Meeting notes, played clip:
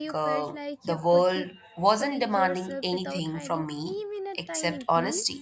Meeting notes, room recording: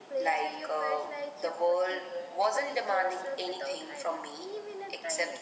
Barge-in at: none

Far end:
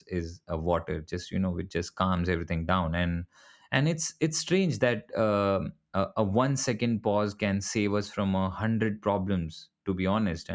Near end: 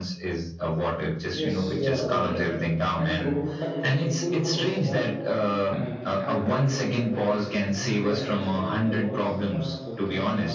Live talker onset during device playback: 1.4 s

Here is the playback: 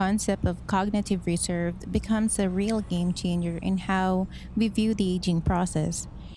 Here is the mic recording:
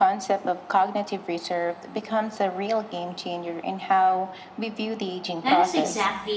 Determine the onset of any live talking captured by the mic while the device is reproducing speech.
5.4 s

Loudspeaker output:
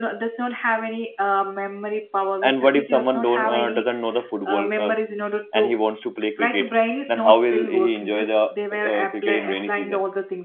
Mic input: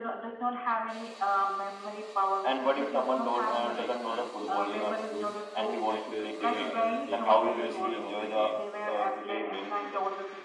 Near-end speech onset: 3.6 s

